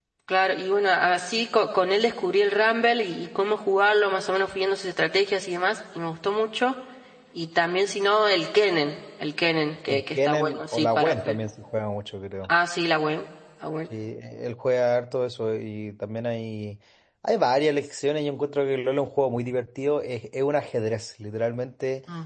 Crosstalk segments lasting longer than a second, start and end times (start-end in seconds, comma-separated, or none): 9.9-11.4